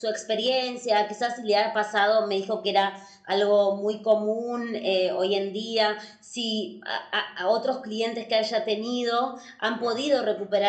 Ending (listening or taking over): listening